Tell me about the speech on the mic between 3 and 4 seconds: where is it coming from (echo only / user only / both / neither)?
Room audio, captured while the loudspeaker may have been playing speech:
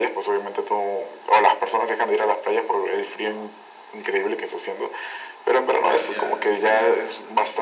echo only